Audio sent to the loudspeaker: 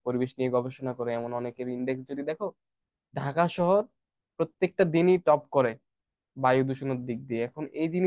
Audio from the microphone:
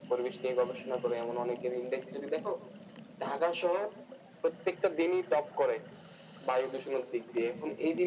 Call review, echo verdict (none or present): present